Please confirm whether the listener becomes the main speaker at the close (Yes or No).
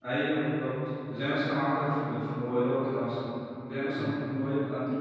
No